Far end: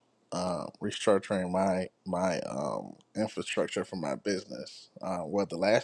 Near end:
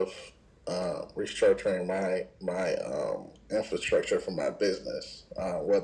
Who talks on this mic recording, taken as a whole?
echo only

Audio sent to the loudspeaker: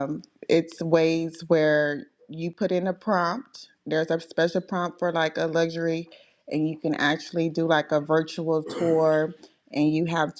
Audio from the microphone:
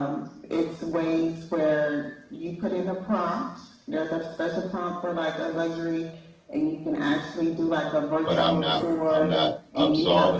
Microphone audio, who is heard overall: both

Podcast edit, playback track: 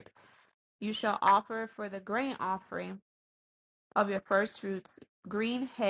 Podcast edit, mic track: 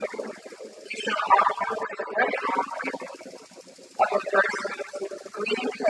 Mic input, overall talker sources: echo only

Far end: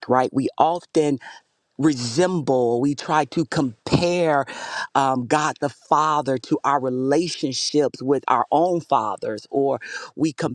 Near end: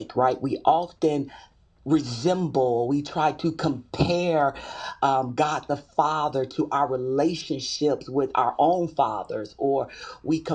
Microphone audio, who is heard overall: echo only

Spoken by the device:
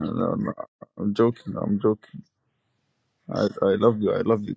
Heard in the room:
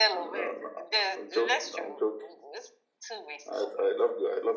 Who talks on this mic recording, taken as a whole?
both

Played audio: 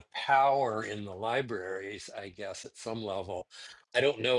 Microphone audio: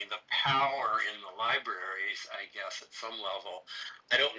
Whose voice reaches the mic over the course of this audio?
echo only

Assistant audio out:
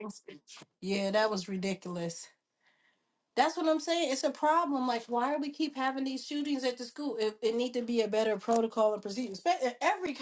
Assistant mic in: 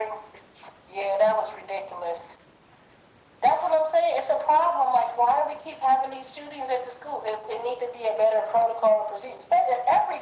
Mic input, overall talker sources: echo only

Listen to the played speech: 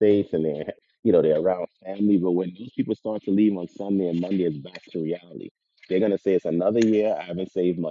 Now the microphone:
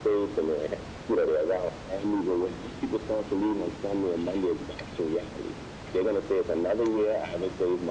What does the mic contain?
echo only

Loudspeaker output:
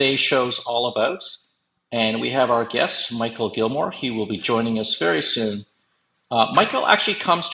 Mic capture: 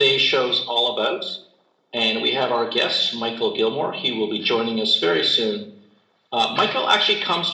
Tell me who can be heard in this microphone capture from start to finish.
echo only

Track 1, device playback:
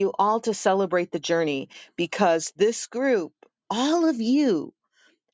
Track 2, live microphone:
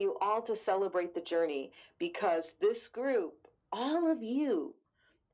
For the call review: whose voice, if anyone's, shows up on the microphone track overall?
echo only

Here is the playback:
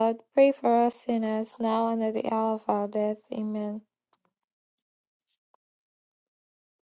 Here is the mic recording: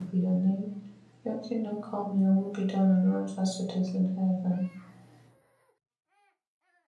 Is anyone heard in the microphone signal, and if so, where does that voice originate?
user only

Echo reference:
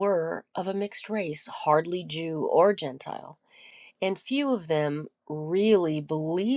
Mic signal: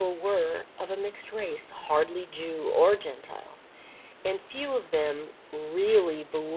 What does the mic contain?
echo only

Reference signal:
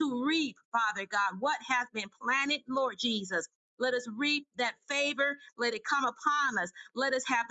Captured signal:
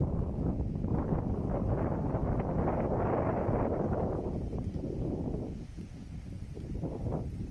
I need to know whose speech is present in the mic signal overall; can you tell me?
neither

